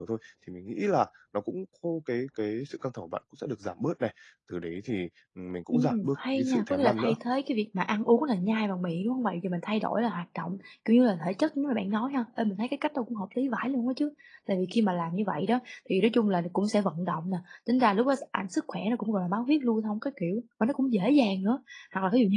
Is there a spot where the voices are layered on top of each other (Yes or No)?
Yes